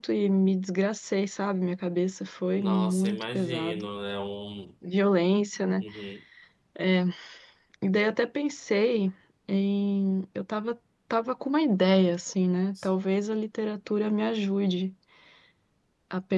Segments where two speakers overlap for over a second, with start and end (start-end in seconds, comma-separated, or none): 2.6-3.9